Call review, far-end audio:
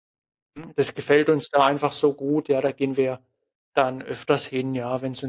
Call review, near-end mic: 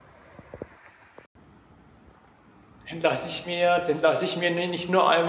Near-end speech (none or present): present